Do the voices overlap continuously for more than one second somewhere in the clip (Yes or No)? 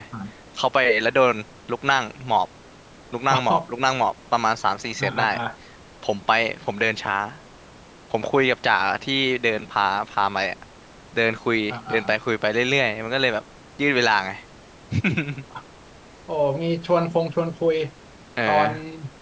No